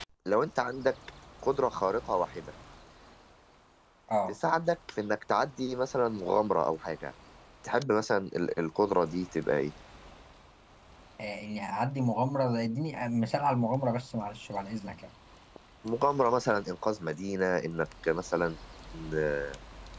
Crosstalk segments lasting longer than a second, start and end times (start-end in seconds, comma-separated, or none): none